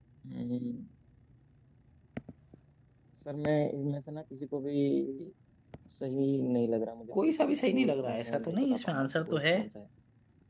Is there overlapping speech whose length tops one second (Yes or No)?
Yes